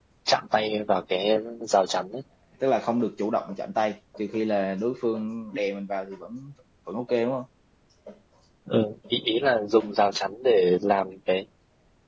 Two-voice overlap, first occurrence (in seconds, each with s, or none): none